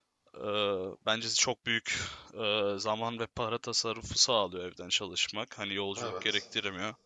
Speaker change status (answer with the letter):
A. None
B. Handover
A